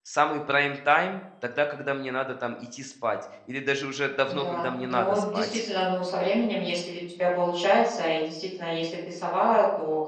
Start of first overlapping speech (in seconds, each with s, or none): 4.3 s